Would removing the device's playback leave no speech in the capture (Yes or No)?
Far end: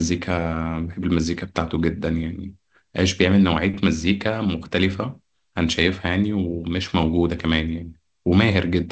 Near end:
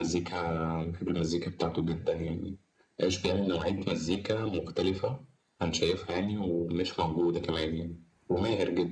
Yes